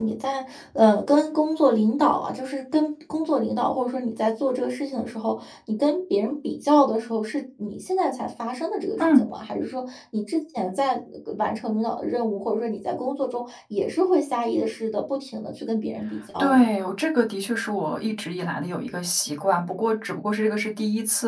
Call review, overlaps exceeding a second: none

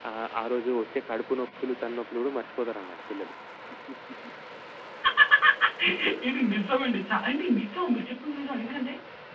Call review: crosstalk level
none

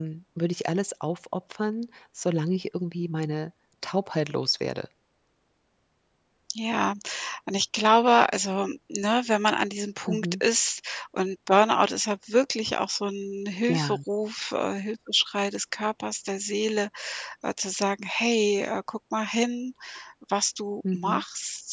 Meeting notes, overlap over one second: none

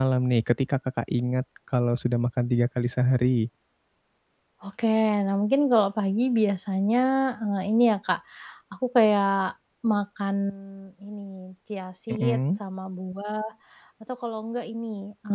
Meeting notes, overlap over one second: none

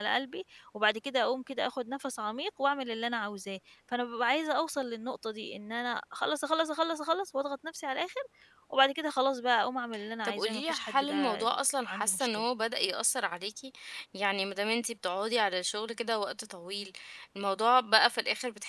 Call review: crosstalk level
present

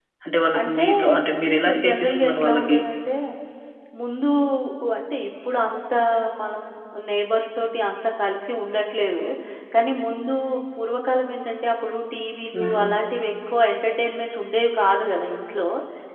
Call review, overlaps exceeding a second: present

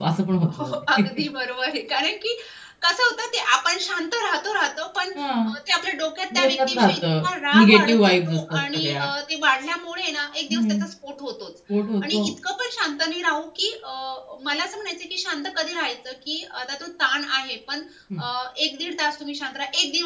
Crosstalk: present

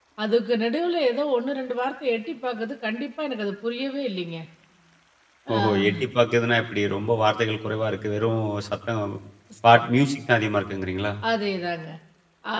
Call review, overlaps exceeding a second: none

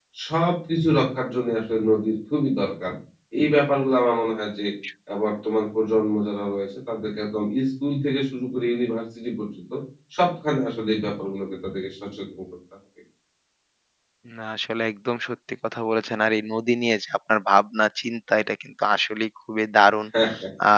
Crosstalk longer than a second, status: none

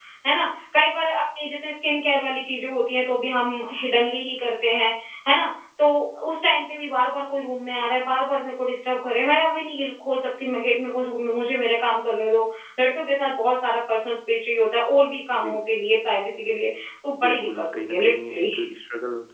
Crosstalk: present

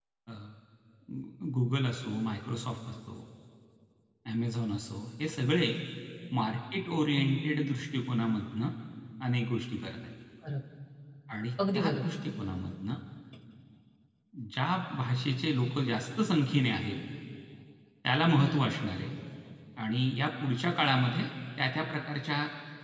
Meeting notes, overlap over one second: none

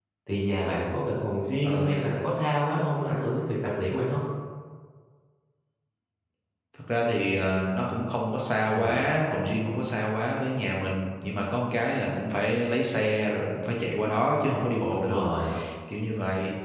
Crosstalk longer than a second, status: none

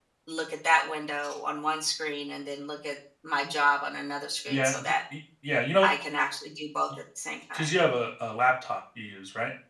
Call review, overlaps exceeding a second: none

